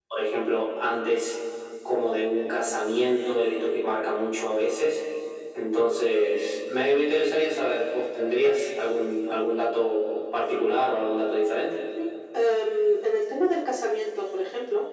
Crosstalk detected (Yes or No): No